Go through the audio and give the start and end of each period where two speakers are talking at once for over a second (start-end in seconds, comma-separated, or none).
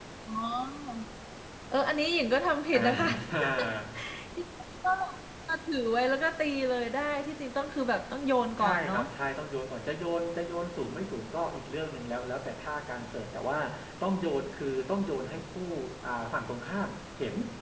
none